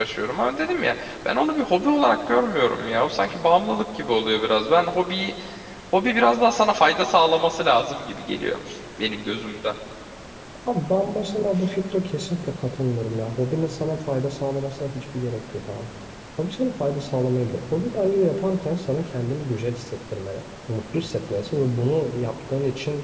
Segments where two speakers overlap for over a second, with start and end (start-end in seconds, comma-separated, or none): none